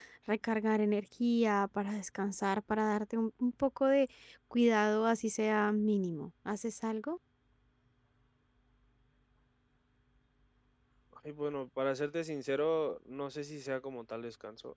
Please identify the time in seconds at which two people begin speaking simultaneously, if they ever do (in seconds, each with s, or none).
none